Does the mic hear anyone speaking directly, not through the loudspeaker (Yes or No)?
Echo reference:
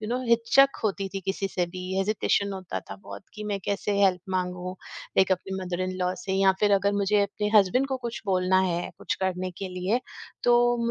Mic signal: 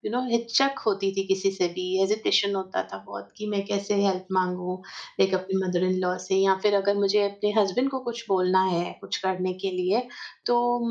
No